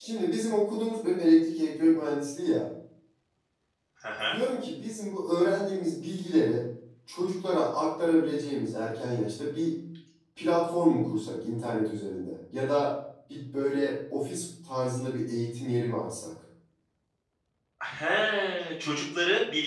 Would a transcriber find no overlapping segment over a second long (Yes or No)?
Yes